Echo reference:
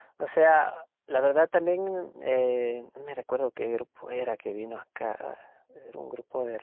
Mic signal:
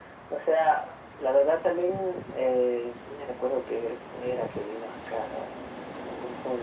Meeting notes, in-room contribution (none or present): none